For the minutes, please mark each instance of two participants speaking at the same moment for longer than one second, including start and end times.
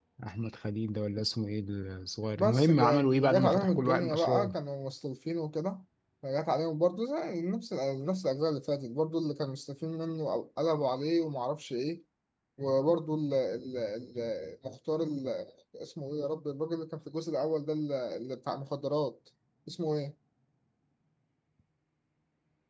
2.4-4.5

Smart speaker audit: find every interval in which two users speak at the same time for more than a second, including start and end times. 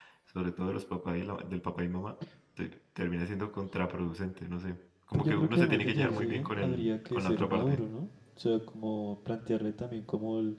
5.1-7.8

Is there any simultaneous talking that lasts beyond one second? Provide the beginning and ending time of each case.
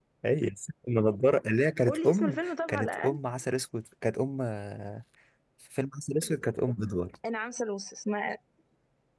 1.9-3.2

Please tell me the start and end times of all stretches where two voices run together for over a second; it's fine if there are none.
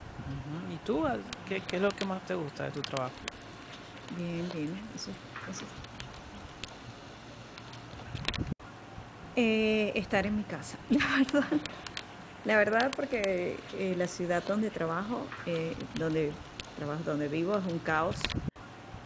none

